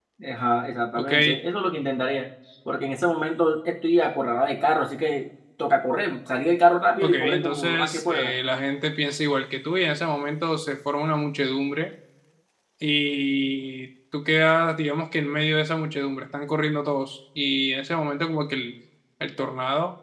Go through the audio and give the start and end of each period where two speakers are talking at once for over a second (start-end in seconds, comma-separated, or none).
7.0-8.3